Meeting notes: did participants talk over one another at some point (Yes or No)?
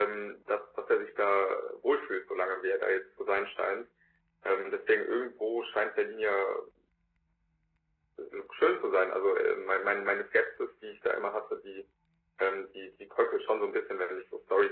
No